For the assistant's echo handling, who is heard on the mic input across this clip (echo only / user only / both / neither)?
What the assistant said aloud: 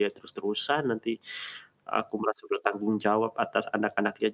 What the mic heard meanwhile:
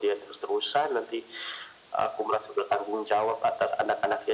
echo only